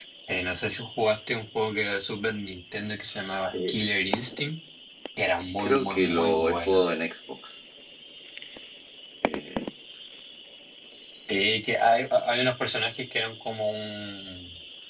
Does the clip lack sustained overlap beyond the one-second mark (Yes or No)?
No